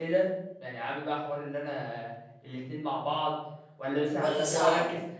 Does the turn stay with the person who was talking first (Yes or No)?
Yes